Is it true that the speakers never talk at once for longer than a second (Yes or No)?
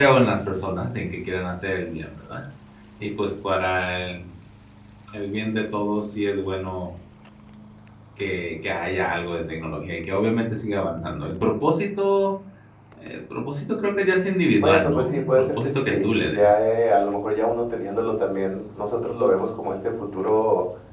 No